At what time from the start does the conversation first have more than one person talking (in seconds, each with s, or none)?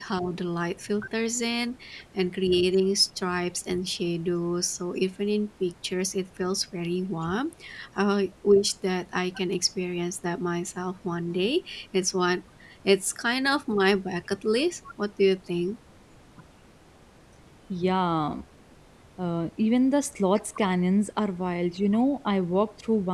none